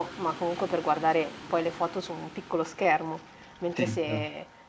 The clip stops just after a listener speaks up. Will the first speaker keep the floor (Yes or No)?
Yes